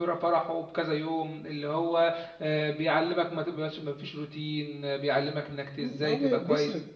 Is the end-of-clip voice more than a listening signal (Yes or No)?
Yes